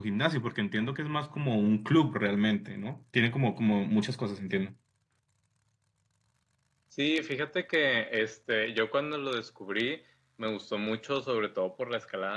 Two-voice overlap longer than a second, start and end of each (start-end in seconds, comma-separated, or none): none